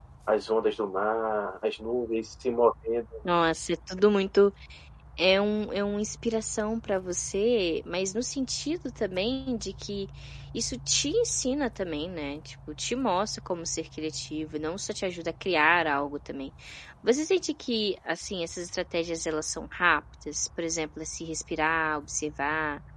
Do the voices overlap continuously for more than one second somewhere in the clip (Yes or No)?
No